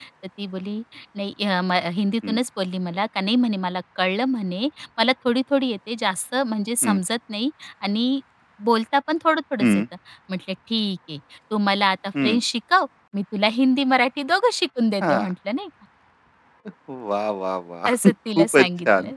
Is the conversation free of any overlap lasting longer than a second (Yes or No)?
No